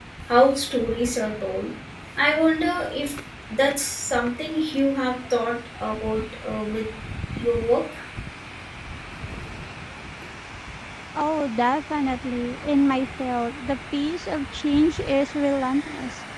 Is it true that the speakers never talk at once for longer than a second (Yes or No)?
Yes